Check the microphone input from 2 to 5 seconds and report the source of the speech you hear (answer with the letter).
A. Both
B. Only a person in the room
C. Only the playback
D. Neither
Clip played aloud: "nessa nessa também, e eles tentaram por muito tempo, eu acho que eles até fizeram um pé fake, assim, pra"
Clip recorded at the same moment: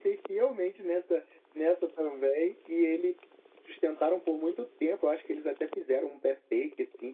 C